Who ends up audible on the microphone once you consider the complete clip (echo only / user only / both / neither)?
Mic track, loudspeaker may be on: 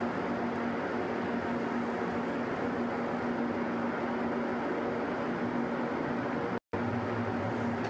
neither